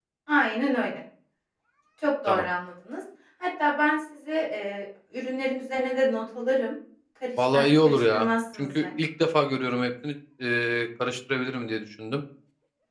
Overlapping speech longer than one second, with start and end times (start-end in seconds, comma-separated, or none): 7.4-8.9